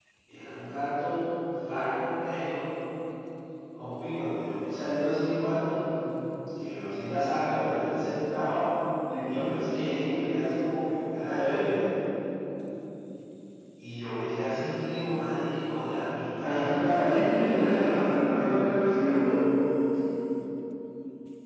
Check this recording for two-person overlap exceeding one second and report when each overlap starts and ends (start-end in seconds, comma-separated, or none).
16.4-19.4